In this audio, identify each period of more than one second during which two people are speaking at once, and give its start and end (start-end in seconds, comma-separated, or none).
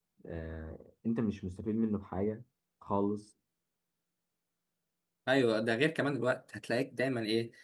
none